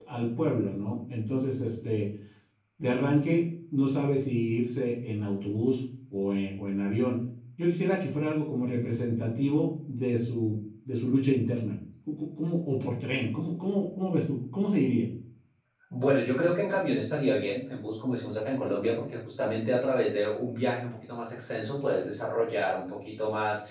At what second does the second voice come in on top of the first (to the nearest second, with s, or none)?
none